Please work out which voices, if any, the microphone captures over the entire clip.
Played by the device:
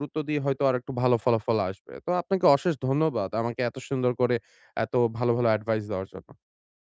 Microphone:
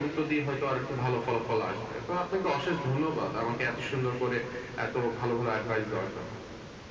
echo only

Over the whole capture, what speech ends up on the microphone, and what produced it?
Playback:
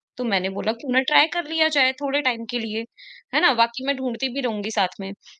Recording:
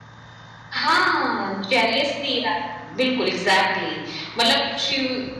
user only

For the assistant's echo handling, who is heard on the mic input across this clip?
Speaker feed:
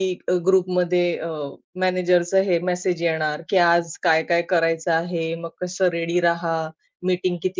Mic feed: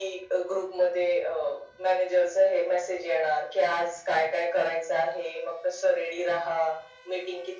echo only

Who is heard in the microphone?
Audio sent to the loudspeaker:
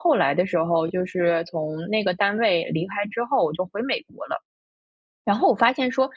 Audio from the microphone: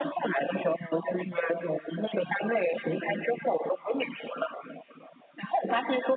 echo only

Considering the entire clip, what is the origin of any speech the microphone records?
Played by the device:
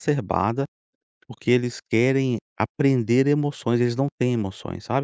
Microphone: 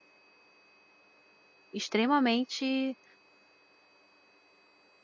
user only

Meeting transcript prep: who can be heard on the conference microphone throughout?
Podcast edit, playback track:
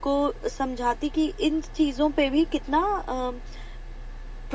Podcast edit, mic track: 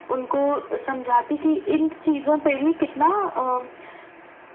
echo only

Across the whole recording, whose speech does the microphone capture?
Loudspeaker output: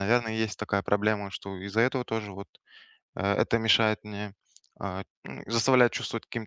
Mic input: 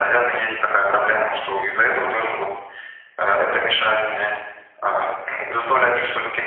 echo only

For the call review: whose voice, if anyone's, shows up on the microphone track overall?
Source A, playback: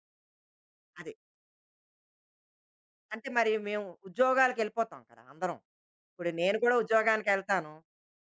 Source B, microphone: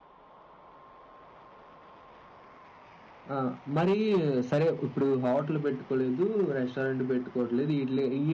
user only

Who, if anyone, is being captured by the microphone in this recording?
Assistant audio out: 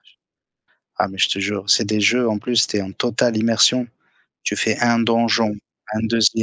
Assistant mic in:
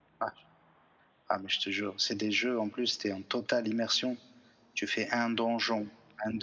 echo only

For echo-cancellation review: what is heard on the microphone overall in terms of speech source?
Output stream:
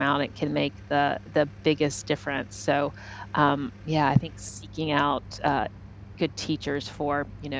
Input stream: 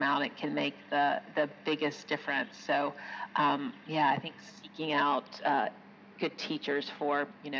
echo only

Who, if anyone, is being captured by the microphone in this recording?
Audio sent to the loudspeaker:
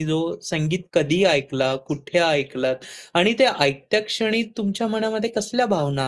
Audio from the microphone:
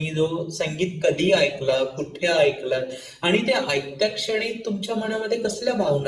echo only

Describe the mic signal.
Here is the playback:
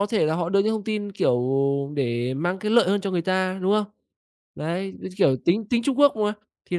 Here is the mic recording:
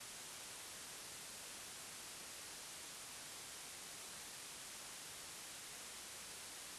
neither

